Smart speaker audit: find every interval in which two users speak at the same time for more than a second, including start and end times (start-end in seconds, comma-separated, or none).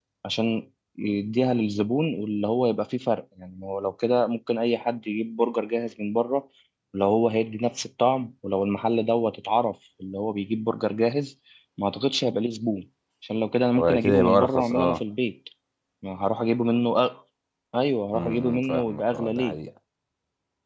13.8-15.0, 18.1-19.6